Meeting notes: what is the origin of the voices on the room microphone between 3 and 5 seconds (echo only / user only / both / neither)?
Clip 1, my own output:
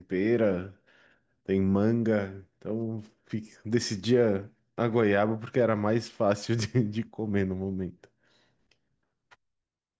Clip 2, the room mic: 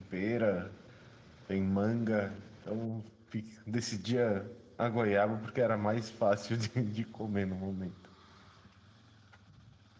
echo only